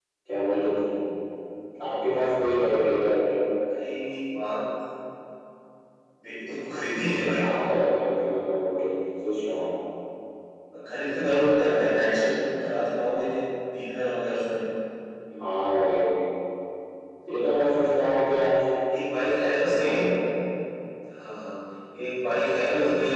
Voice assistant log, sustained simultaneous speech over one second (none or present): none